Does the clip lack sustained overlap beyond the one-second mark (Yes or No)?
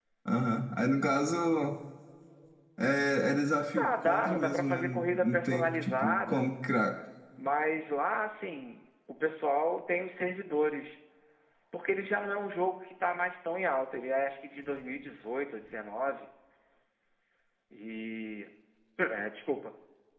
No